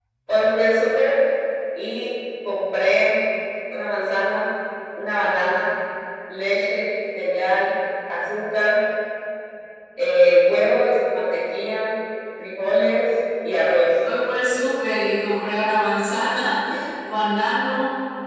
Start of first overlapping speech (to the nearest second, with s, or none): none